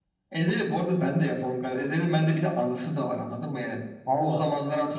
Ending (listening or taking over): listening